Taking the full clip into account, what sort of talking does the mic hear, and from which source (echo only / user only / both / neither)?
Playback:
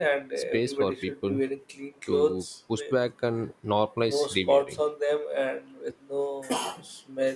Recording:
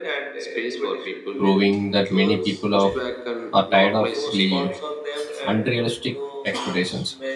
both